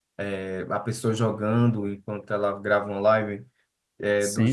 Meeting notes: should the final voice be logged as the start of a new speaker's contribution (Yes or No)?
No